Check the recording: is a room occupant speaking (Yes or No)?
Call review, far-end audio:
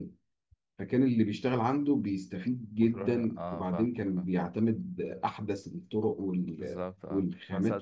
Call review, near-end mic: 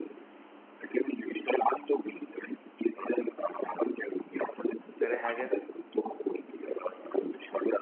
Yes